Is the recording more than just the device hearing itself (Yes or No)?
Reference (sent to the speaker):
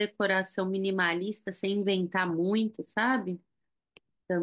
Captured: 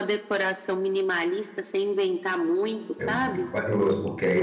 Yes